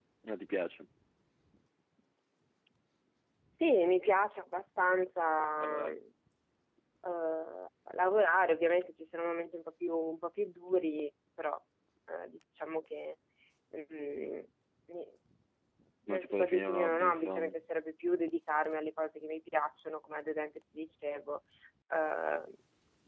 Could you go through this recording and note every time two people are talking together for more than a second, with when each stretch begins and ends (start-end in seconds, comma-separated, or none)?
16.1-17.5